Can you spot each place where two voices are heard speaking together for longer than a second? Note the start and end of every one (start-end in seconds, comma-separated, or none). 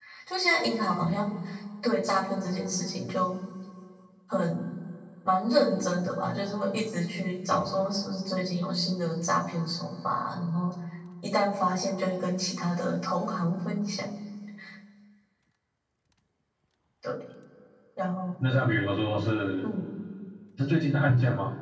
none